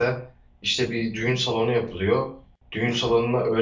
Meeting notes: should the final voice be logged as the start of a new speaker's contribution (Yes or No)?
No